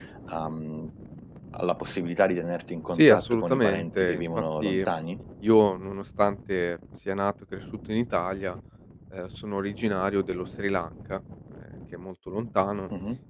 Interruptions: present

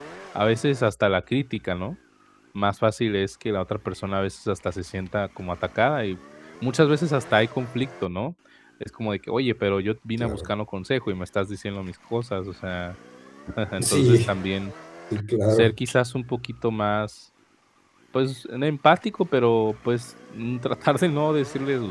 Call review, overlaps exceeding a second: none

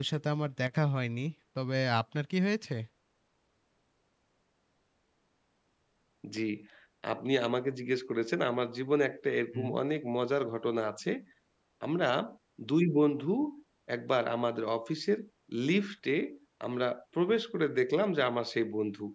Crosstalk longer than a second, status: none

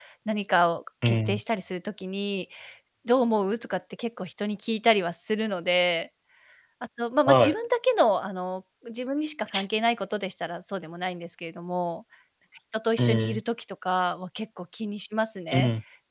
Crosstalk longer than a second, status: none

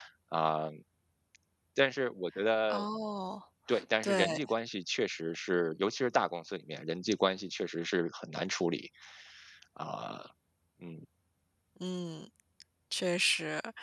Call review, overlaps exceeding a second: none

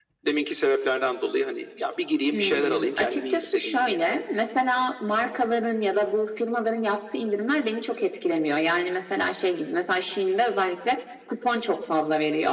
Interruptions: present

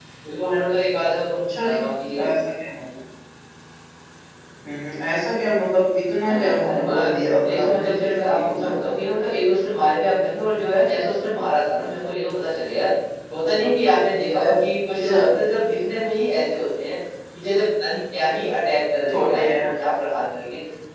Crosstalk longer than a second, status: present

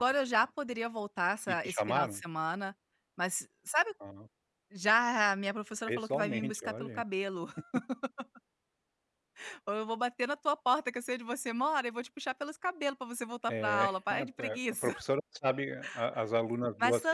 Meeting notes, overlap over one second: present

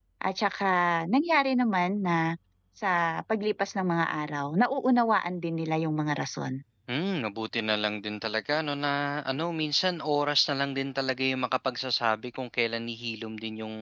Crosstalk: none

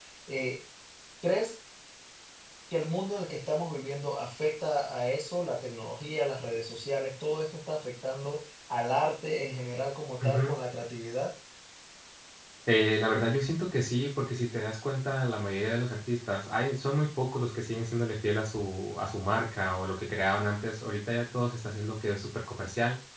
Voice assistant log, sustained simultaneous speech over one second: none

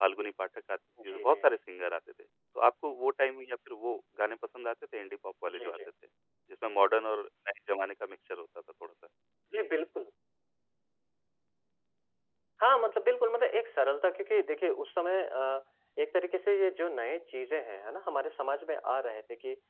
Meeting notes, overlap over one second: none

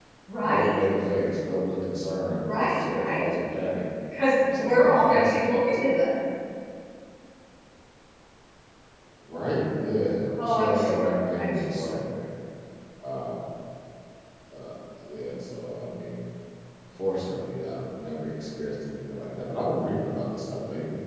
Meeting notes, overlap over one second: present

